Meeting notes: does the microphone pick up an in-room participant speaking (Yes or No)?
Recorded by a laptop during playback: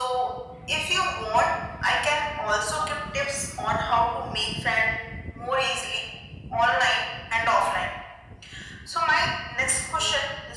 No